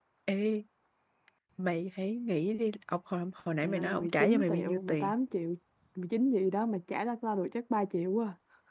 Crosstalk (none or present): present